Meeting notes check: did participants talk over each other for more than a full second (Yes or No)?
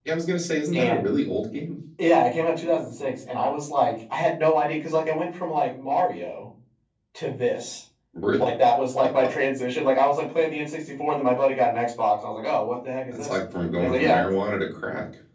No